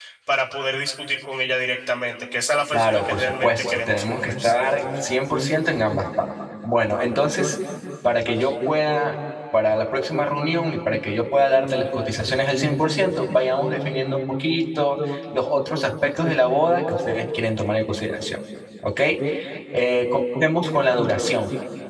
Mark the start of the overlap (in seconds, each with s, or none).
2.7 s